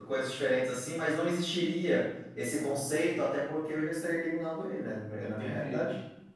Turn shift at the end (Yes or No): Yes